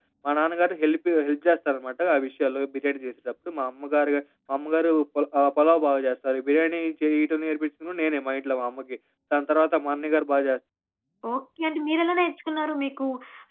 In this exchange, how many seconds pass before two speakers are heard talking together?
none

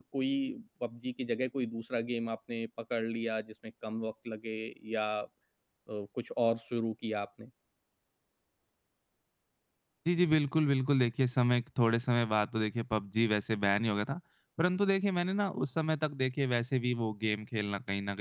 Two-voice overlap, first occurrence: none

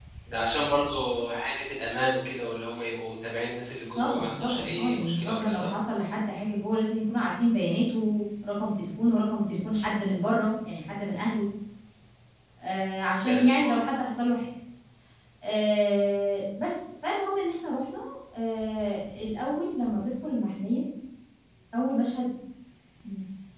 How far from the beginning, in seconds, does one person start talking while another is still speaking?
4 s

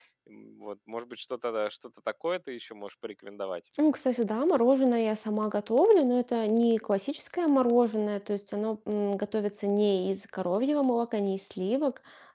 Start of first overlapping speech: none

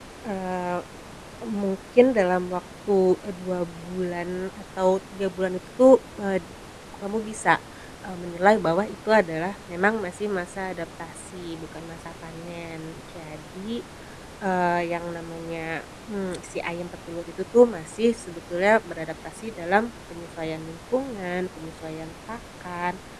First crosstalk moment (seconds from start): none

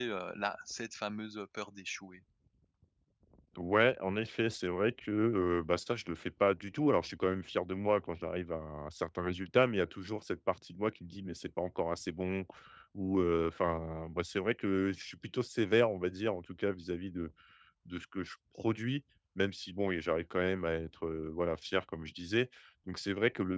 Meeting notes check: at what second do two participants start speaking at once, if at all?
none

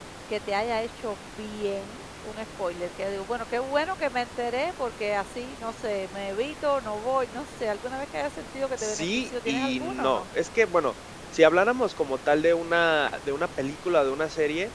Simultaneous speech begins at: 9 s

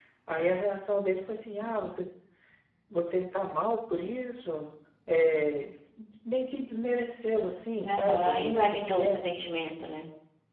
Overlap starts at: 8 s

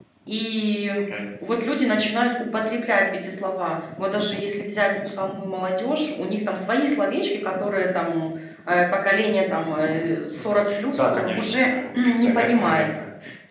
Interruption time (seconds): 10 s

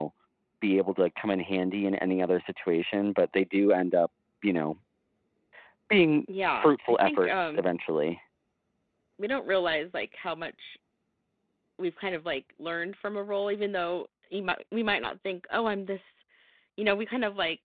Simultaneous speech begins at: 7 s

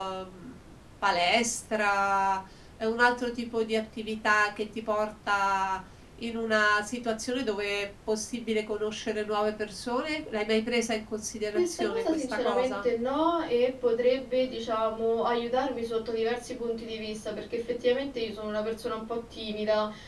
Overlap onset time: 12 s

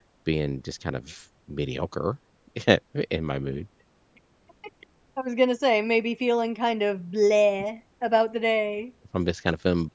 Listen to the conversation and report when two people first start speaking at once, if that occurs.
none

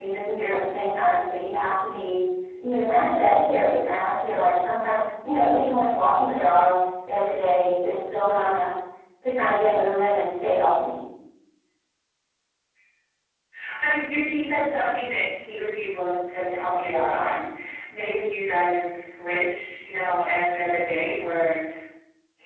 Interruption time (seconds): none

